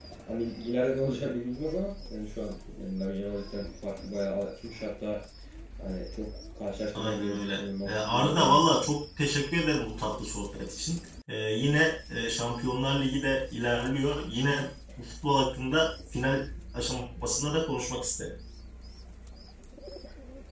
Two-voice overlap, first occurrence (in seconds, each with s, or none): 7.0 s